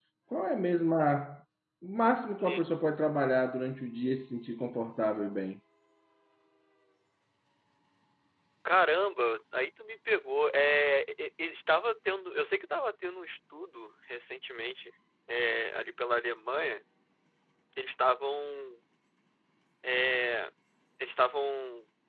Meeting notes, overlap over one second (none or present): none